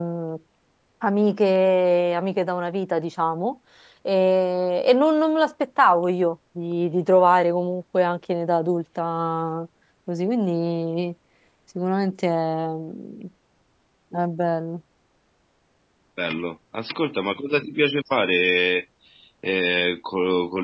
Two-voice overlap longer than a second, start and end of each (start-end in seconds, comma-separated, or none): none